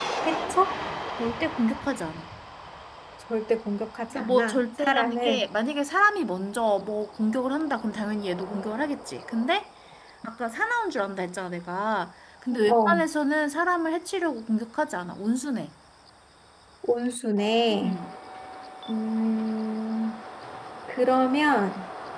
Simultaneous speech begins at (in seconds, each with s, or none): 4.1 s